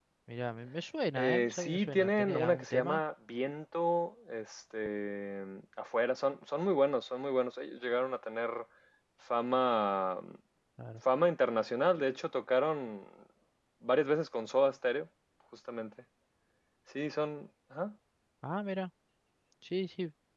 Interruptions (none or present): present